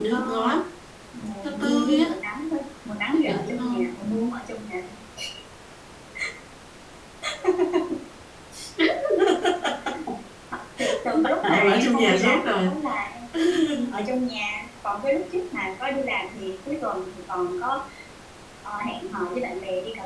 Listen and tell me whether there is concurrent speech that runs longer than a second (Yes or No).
Yes